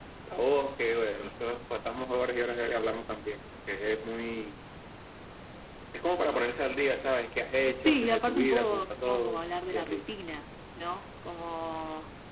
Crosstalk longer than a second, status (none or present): present